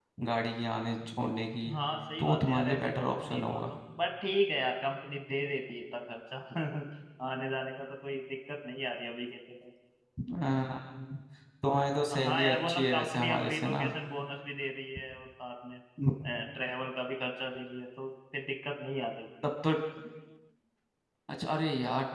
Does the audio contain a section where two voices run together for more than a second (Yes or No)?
Yes